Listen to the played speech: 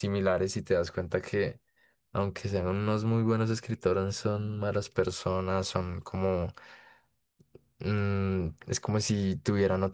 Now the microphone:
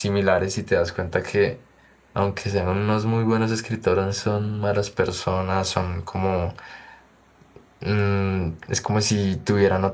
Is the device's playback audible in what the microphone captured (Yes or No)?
Yes